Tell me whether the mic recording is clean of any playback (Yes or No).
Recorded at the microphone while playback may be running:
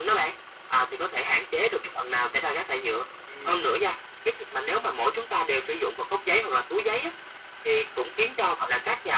No